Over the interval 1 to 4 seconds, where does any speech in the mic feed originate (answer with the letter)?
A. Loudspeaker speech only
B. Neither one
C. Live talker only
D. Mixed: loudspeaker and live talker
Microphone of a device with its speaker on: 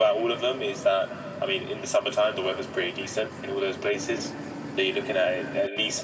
A